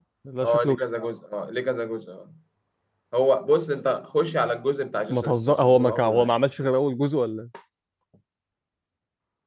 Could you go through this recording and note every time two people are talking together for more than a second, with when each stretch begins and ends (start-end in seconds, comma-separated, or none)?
5.1-6.3